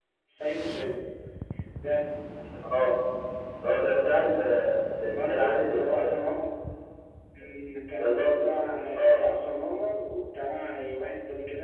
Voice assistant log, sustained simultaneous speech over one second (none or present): present